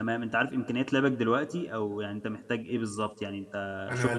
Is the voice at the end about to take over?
Yes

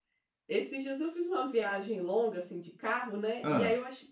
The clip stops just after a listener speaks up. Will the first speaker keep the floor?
Yes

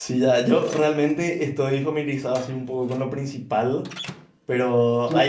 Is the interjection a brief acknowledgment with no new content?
Yes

